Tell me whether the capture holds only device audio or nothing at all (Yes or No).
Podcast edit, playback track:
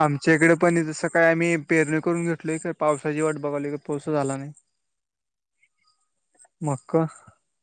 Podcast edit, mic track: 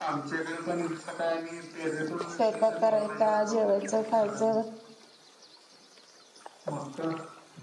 No